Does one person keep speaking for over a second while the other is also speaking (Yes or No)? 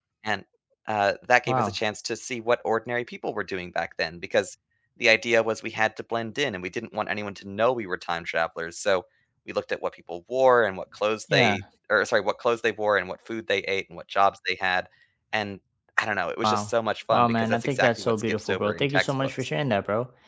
Yes